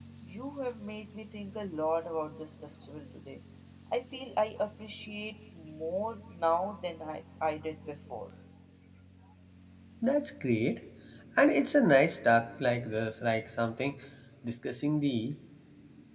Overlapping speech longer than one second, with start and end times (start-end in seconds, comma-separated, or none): none